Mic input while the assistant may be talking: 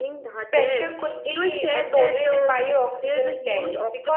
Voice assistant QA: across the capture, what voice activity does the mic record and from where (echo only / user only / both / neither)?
both